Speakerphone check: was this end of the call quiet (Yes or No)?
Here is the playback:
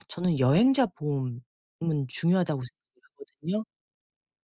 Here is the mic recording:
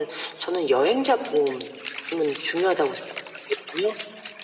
Yes